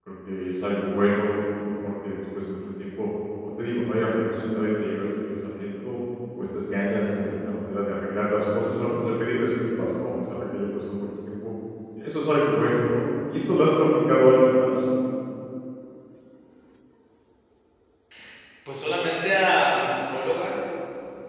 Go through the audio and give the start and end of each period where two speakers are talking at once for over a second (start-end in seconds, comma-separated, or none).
none